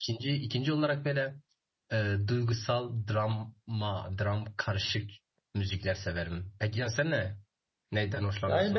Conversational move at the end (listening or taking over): taking over